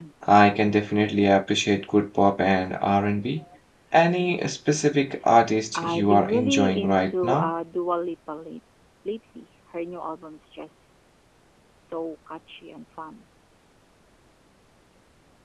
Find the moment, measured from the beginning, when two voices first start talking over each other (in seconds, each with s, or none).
5.7 s